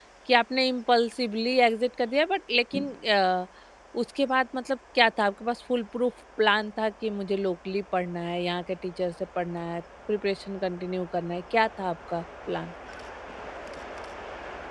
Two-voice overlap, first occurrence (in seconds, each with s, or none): none